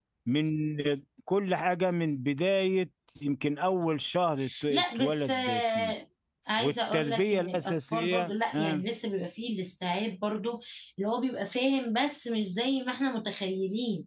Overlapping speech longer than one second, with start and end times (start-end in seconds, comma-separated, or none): 4.7-5.9, 6.6-8.8